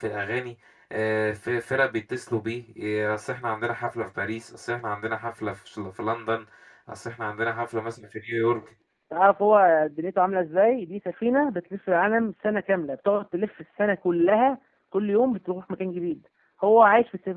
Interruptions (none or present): none